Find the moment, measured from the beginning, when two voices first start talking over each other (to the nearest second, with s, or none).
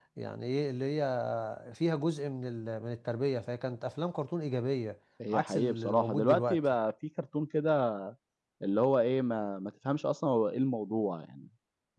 5 s